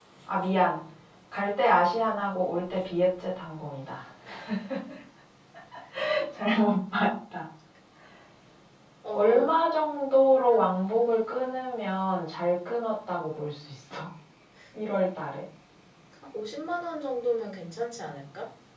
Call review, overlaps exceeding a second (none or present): none